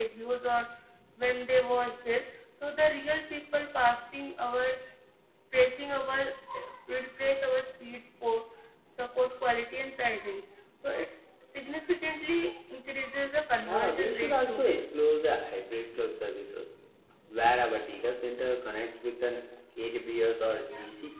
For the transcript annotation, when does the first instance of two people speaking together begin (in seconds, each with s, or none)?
13.5 s